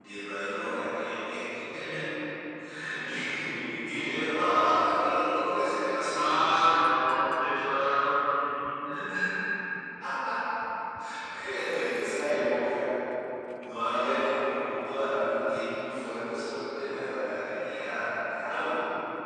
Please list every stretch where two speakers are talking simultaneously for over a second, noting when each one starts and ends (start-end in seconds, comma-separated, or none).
none